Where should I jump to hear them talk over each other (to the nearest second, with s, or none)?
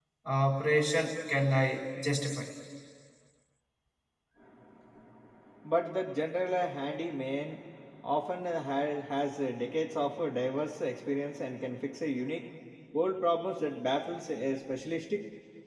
none